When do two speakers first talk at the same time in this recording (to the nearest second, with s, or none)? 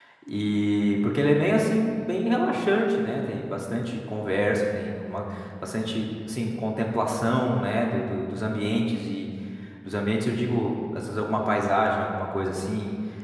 none